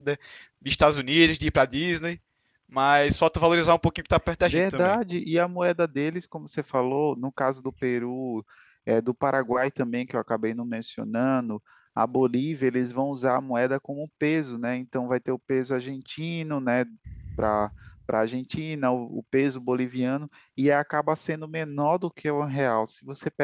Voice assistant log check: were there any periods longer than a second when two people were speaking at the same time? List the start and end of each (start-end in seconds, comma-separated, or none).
none